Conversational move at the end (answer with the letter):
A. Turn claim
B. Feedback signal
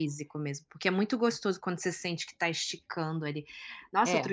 B